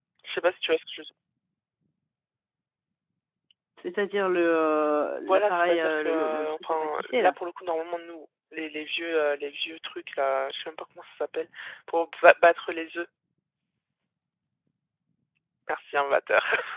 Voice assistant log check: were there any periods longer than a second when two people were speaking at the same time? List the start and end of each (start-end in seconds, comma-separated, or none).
5.3-7.3